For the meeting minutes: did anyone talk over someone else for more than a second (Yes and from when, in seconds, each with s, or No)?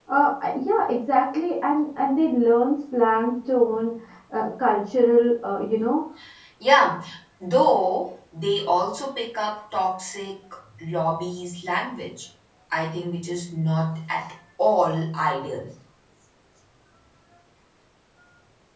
No